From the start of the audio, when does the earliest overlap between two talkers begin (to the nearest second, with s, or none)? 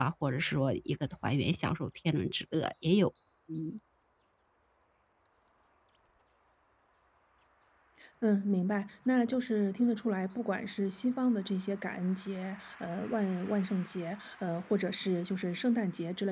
none